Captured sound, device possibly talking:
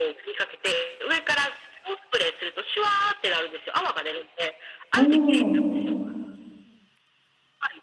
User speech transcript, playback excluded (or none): おお。